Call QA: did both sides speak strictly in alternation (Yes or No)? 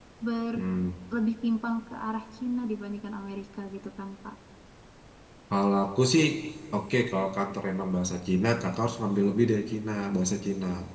Yes